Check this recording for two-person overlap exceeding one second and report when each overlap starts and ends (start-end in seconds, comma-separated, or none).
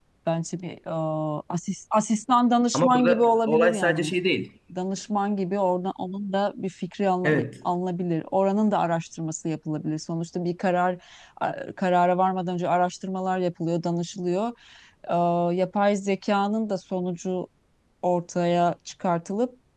2.7-4.1